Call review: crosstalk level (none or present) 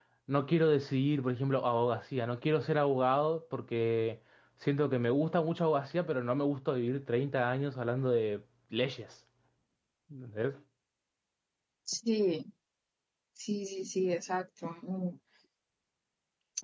none